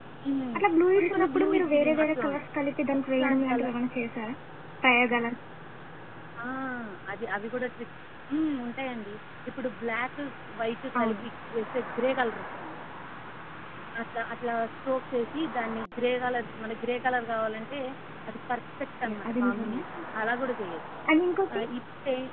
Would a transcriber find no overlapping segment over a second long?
No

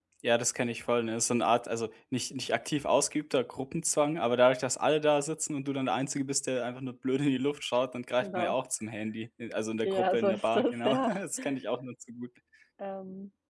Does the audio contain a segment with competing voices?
Yes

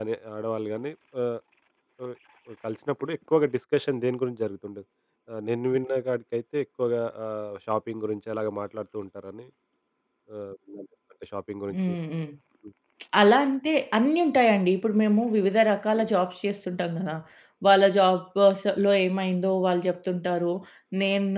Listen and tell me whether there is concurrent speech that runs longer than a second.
No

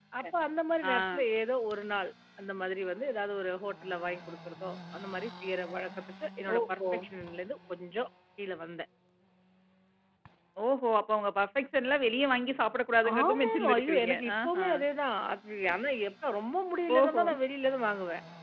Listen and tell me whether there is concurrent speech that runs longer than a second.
Yes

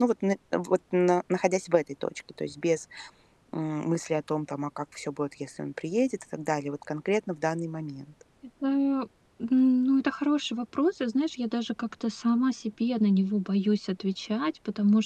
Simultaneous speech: No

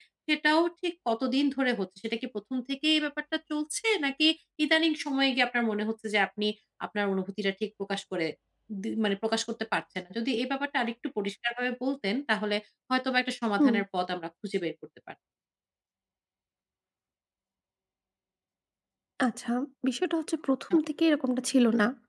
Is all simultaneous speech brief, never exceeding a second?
Yes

